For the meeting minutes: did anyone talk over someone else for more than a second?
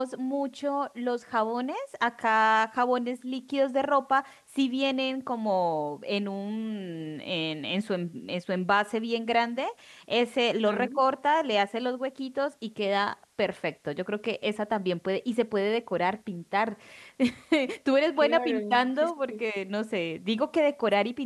Yes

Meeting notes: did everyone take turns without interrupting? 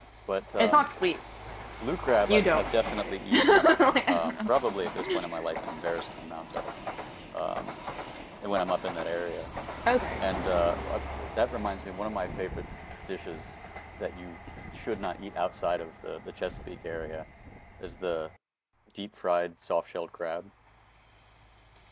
No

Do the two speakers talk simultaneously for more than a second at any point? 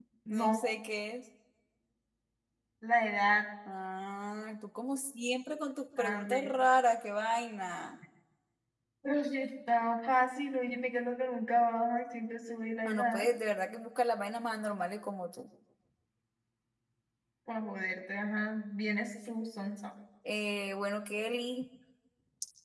No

